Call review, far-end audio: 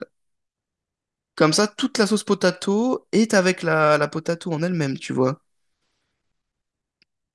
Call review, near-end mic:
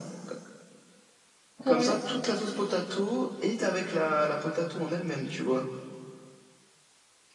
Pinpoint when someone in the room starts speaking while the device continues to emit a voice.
2 s

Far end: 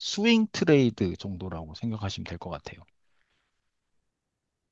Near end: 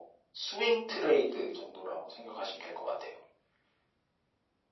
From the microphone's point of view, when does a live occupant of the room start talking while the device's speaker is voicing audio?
none

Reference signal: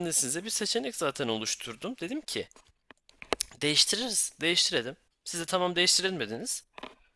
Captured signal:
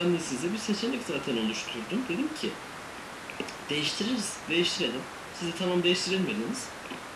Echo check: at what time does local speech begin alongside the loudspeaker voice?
none

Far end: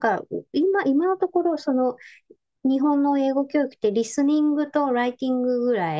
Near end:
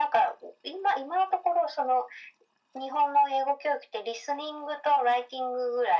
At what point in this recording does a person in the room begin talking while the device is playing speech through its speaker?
none

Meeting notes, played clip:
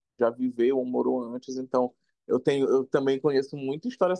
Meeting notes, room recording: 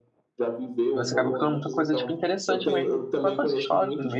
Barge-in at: 1 s

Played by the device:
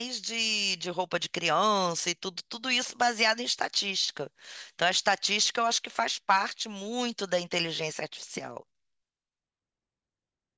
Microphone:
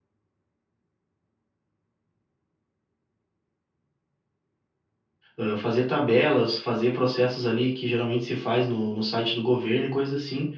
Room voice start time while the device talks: 5 s

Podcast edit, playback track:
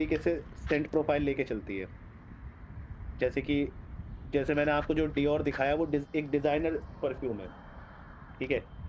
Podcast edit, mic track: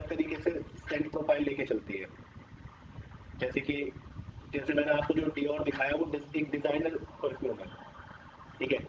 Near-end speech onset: none

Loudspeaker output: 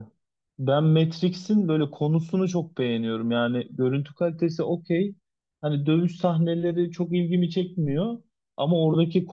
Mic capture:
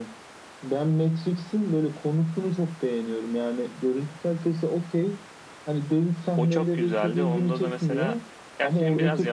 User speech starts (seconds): 6 s

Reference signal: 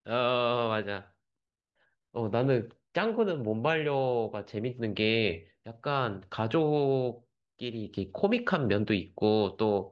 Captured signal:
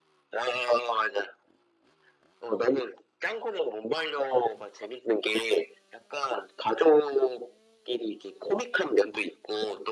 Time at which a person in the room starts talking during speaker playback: none

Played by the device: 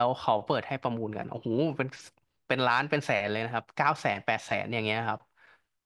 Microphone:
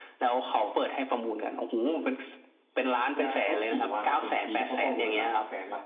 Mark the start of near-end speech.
3 s

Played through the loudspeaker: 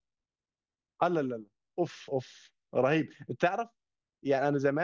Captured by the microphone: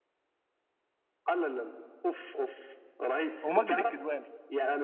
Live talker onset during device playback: 3 s

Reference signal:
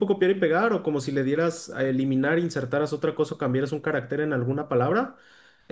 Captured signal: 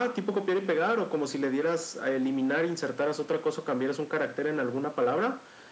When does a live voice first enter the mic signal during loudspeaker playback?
none

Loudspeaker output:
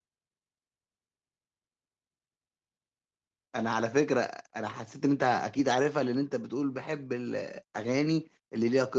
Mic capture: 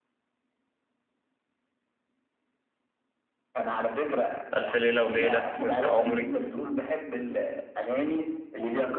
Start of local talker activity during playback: 5 s

